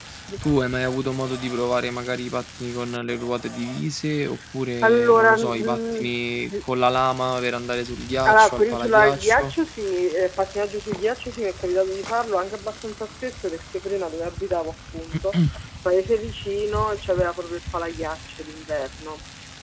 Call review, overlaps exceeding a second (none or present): present